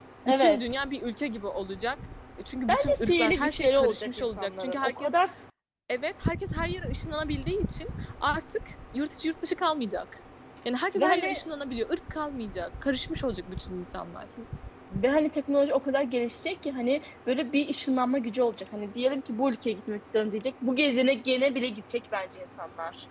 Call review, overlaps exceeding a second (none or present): present